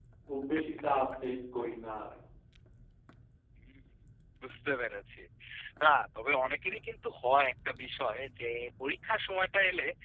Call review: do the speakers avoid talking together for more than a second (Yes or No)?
Yes